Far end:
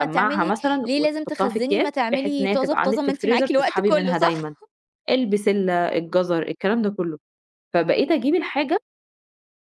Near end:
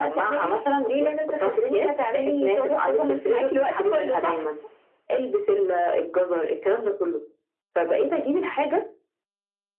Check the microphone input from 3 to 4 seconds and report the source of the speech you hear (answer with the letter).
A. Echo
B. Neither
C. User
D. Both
A